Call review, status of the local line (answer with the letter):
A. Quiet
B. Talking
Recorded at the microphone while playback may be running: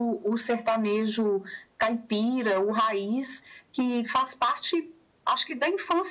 A